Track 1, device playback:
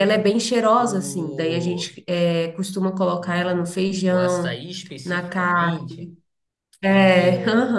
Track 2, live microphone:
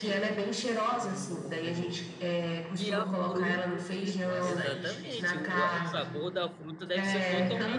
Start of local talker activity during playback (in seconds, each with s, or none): 2.8 s